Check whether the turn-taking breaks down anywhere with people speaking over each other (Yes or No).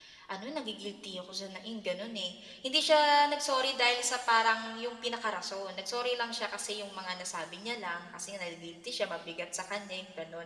No